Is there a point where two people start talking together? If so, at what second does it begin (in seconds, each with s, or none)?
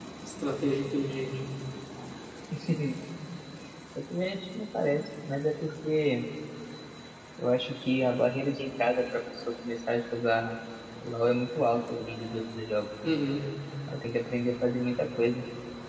none